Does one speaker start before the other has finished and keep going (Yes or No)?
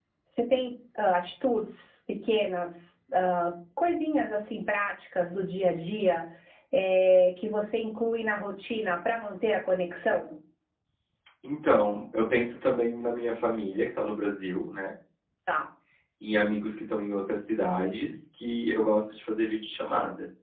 No